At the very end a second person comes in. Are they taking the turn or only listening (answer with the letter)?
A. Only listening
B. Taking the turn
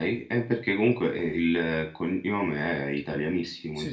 B